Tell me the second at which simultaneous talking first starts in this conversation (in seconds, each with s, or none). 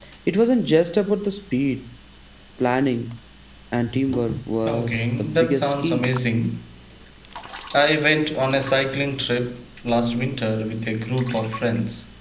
4.7 s